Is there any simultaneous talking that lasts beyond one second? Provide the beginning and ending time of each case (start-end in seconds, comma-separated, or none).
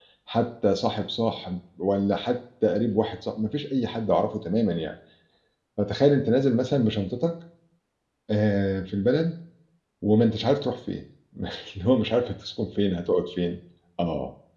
none